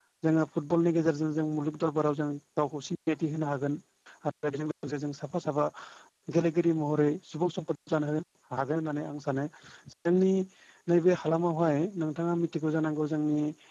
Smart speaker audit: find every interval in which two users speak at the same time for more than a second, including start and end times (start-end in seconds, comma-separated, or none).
none